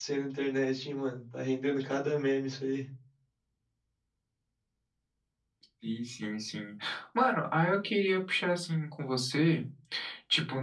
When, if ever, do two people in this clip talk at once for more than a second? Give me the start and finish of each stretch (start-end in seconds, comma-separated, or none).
none